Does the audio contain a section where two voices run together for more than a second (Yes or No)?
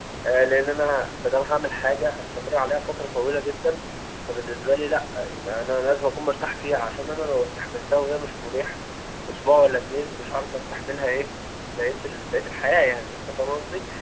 No